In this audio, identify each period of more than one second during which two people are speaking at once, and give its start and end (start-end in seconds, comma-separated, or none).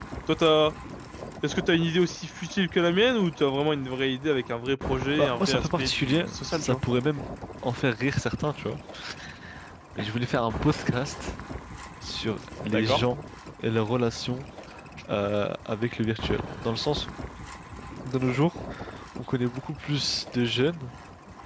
5.2-6.8